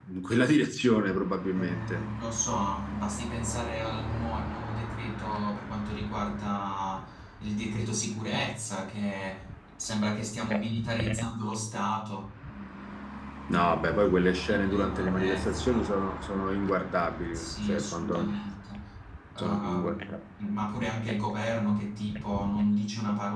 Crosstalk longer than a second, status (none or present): present